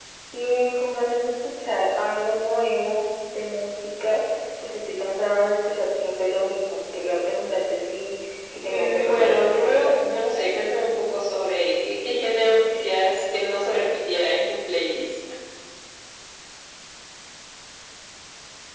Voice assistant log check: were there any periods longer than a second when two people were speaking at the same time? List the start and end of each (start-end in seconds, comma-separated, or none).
8.7-10.0